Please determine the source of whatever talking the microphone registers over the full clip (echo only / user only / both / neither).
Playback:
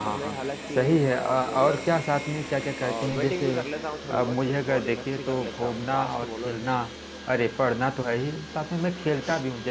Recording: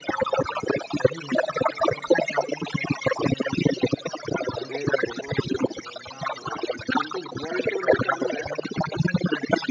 both